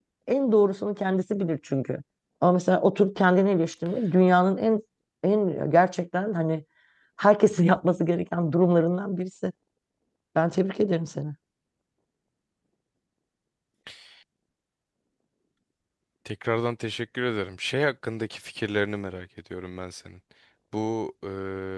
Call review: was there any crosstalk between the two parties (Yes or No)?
No